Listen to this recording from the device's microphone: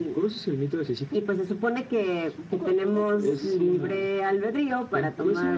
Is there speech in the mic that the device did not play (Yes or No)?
Yes